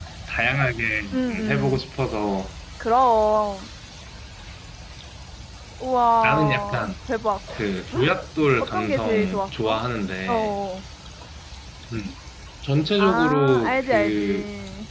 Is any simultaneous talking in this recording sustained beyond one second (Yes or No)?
Yes